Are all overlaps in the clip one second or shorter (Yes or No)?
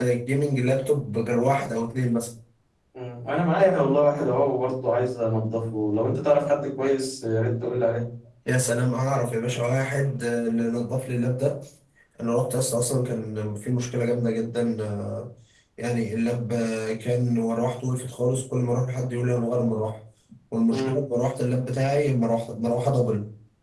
Yes